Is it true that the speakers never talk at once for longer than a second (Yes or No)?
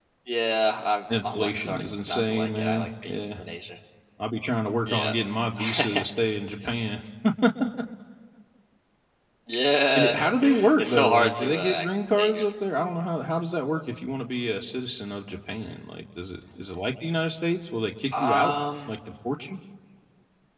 No